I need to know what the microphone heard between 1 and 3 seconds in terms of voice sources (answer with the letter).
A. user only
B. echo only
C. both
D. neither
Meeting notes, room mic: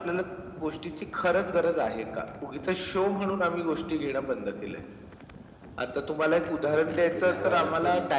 B